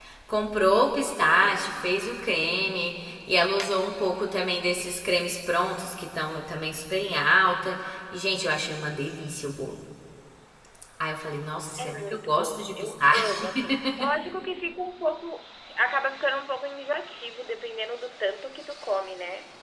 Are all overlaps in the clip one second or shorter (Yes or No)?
No